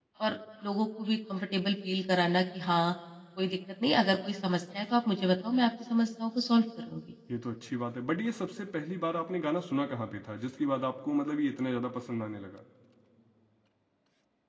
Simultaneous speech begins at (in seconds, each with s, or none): none